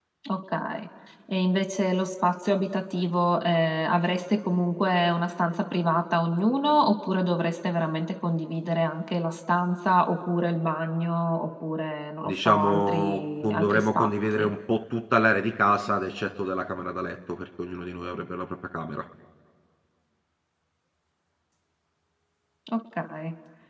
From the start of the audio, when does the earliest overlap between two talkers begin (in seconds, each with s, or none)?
12.2 s